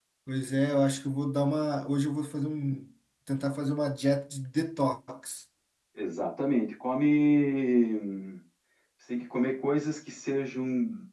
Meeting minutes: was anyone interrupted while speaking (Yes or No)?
No